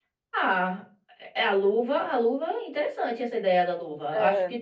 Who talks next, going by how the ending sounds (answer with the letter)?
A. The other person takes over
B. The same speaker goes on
B